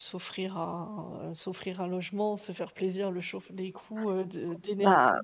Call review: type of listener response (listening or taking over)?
taking over